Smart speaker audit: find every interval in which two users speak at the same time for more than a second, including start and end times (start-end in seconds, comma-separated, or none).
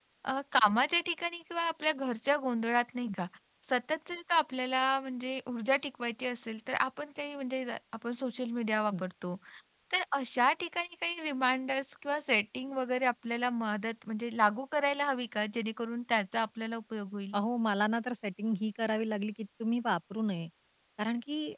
none